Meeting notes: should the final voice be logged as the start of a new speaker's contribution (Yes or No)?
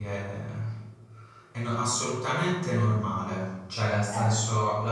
No